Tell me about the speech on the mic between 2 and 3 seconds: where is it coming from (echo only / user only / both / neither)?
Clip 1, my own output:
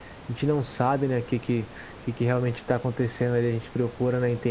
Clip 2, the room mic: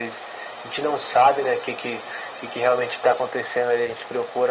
echo only